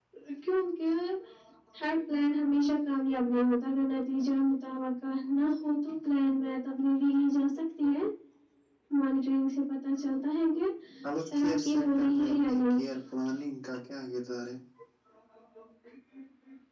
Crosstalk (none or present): present